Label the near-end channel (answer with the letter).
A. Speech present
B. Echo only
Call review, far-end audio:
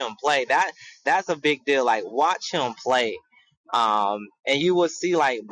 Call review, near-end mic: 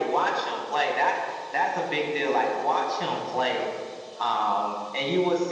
B